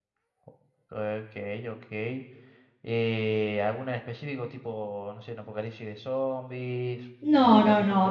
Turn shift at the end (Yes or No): Yes